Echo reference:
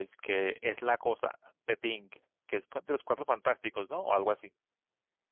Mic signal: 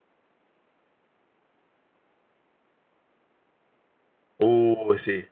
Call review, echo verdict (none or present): none